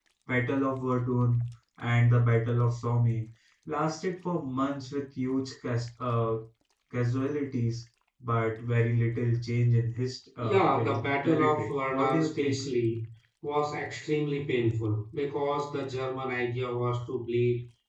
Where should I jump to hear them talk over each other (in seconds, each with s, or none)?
10.4 s